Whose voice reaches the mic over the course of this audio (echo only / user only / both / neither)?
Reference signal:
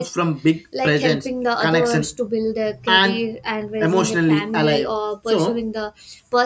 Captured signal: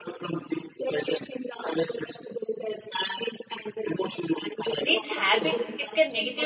both